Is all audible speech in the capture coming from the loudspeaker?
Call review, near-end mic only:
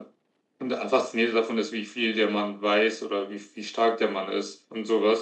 Yes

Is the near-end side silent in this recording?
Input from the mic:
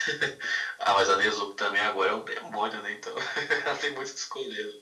Yes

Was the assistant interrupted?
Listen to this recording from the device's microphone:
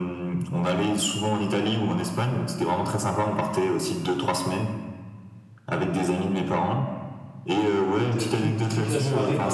Yes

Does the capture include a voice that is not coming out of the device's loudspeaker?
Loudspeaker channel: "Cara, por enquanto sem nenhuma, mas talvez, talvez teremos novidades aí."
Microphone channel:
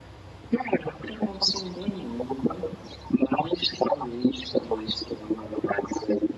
No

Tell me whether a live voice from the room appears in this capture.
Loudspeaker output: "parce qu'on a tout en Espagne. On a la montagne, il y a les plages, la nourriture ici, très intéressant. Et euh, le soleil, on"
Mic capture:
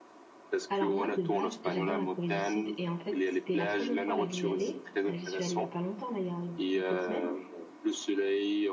Yes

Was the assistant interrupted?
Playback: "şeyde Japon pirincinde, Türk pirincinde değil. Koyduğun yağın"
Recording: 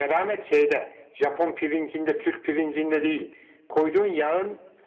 No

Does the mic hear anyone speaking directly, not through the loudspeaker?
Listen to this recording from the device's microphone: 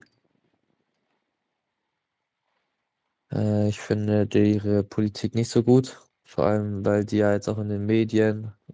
Yes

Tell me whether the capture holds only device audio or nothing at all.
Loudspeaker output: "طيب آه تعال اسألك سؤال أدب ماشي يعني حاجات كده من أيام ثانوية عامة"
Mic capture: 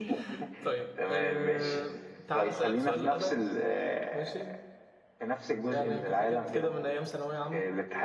No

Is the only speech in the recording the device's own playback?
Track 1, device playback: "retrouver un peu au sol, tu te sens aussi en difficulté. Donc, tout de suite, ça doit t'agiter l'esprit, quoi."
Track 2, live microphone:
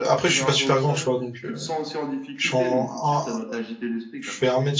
No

